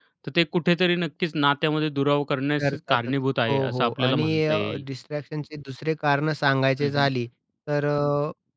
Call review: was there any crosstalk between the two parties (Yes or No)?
Yes